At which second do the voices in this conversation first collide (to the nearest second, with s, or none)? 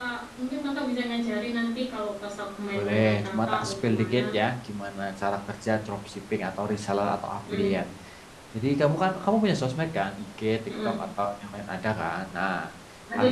3 s